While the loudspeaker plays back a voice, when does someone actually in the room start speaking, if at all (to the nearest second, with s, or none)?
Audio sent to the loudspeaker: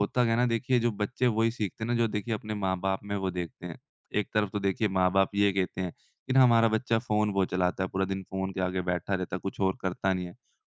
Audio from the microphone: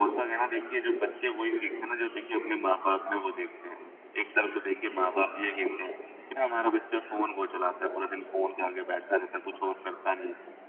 none